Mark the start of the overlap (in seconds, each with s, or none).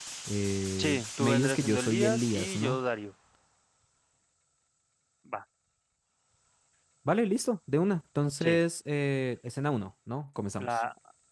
0.8 s